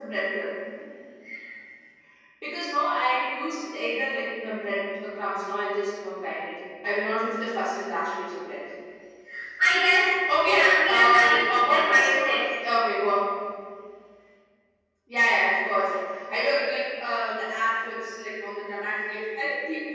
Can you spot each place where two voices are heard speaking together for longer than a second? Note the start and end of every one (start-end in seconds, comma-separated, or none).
10.4-12.4